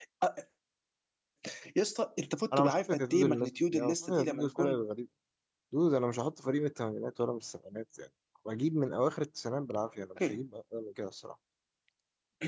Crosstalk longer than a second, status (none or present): present